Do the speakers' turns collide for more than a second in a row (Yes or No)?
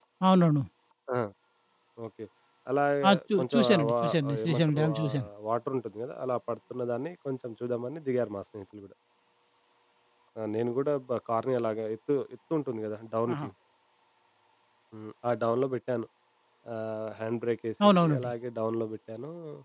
Yes